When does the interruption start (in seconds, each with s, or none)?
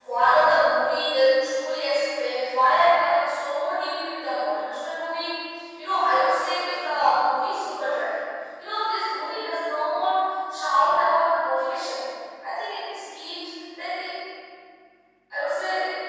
none